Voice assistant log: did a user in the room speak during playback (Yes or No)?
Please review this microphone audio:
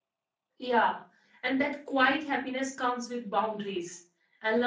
Yes